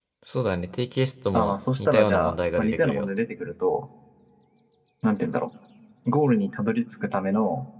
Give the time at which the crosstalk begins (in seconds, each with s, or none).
1.3 s